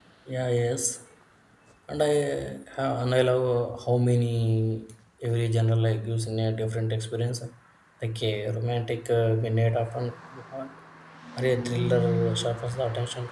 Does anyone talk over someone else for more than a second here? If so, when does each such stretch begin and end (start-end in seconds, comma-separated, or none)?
none